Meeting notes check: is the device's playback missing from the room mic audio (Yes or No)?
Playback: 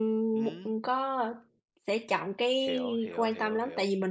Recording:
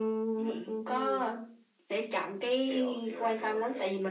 No